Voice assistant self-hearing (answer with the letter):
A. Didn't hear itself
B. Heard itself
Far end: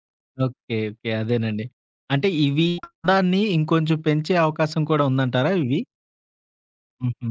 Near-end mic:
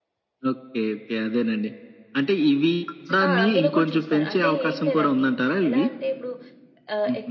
B